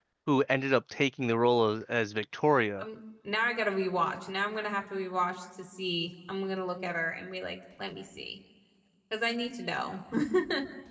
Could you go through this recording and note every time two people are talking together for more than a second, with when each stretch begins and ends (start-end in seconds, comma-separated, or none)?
none